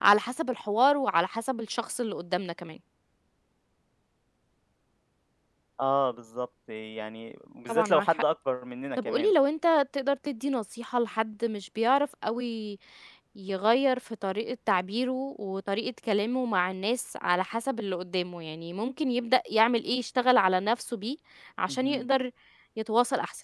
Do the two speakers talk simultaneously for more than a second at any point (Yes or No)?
No